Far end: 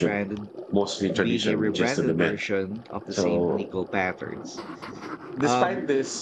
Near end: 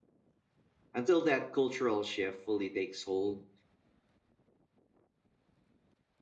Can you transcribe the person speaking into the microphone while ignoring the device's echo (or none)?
Until that cultural shift fully takes hold,